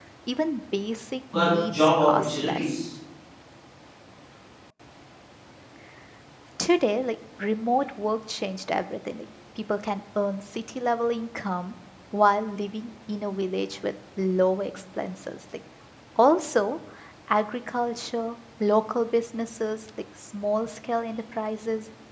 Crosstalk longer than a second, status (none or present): present